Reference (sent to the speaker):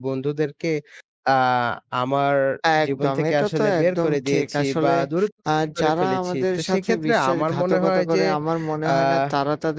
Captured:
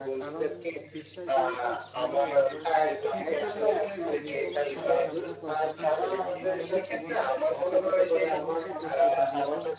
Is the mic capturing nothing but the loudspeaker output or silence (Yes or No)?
No